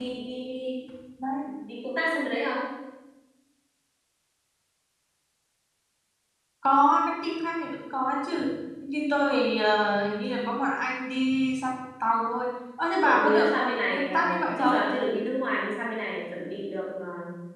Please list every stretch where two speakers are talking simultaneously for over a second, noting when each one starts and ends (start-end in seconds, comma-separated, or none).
13.0-14.8